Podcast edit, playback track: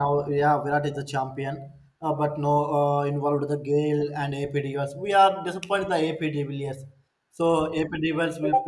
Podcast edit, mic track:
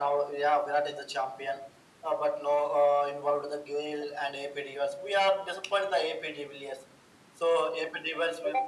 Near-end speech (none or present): none